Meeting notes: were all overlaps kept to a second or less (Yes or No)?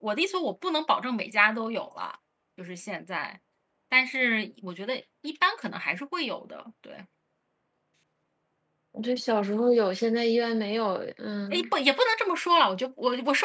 Yes